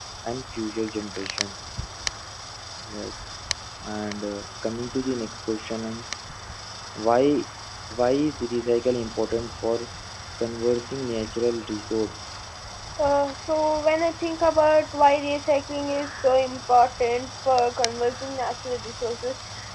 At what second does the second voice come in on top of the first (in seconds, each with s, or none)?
none